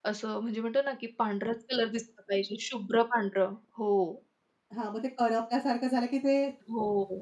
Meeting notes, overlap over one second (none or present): none